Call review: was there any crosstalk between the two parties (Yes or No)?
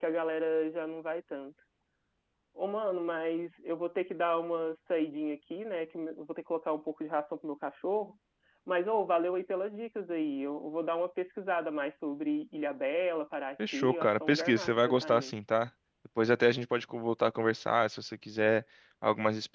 Yes